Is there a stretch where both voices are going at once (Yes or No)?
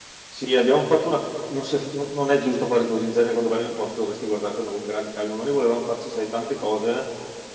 No